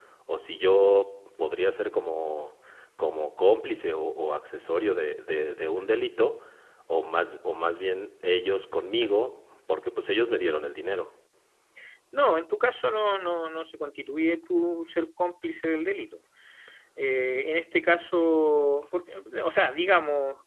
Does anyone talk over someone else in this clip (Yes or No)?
No